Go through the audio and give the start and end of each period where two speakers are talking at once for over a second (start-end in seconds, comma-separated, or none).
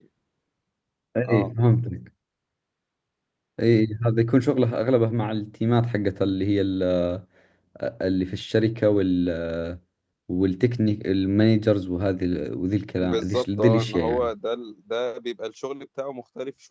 13.0-14.3